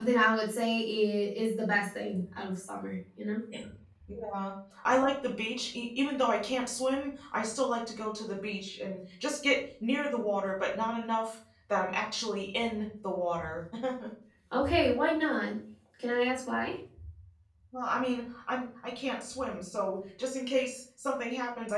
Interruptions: none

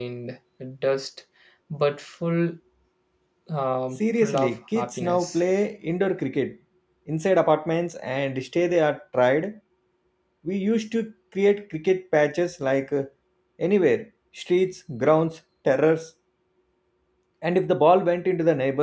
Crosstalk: present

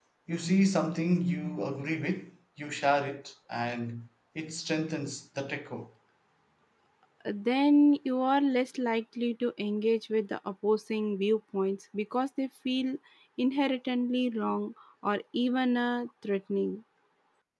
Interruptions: none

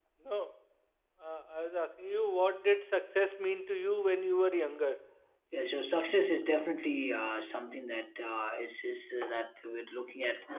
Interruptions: none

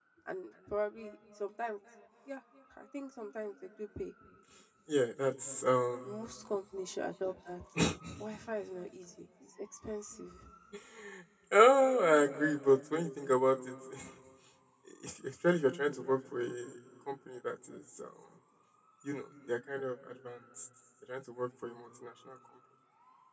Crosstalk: none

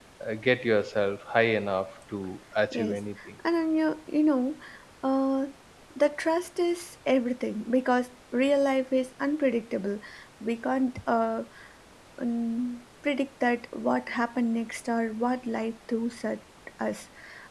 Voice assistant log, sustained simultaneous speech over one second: none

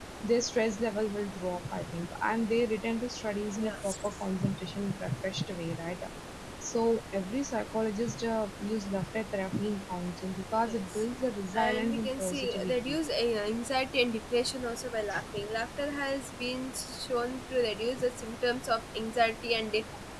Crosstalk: present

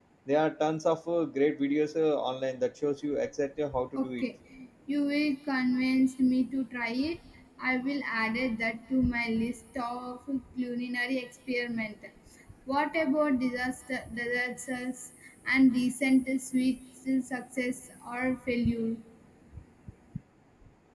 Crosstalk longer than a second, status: none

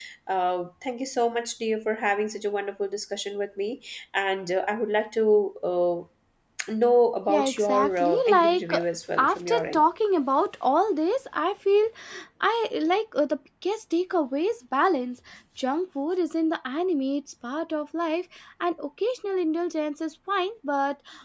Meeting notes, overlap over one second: present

